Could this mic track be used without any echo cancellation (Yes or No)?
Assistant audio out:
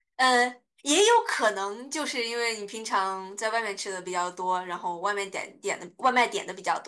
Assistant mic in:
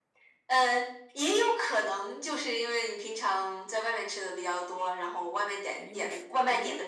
No